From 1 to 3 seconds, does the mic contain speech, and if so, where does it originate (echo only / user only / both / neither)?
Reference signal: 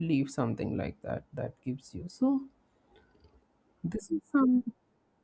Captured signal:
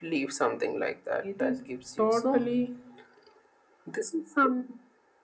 both